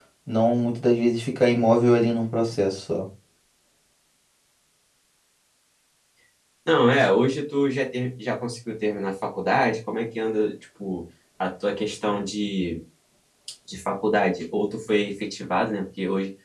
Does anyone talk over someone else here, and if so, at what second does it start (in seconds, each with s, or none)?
none